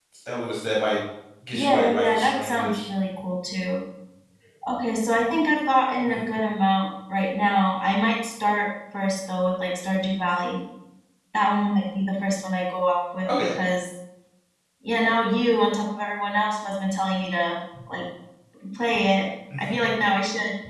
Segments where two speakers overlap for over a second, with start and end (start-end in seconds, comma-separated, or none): 1.5-2.8